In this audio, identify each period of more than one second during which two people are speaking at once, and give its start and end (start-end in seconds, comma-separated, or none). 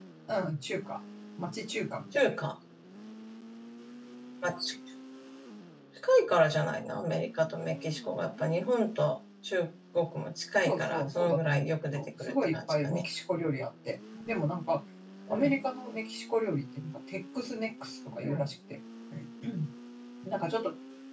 10.7-13.0